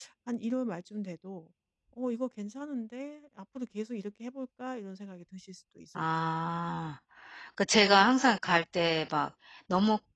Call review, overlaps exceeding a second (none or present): none